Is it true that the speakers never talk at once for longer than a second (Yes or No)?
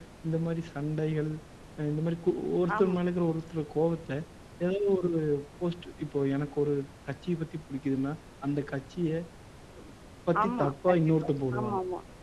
No